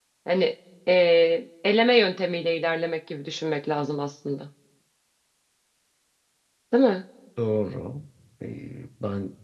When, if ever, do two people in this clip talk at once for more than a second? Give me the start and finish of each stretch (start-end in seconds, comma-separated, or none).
none